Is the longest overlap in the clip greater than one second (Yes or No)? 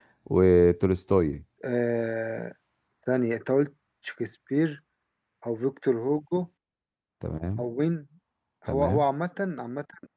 No